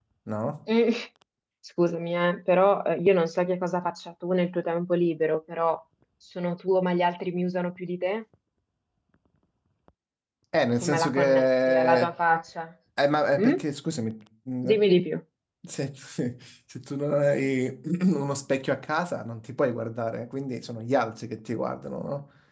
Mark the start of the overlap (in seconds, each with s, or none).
10.8 s